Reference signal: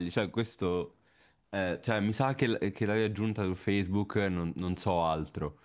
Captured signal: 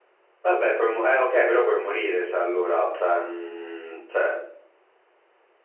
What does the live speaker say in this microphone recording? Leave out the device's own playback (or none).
Vabbè, puoi mu- eh, ok, però puoi morire, se allora, cioè, mm, cioè,